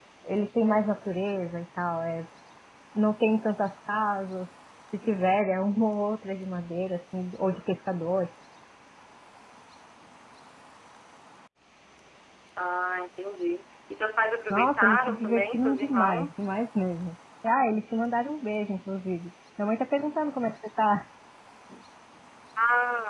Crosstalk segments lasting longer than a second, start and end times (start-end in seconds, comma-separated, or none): 14.5-16.5